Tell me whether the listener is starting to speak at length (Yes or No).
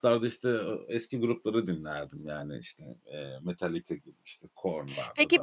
Yes